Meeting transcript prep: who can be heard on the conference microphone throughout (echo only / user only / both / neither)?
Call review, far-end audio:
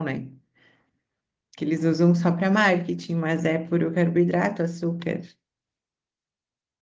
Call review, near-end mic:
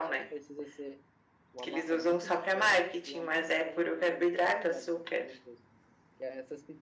both